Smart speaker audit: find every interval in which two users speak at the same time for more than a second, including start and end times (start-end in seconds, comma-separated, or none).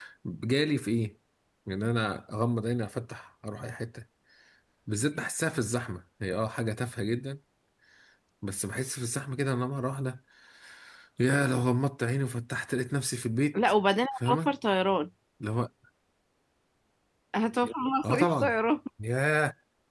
none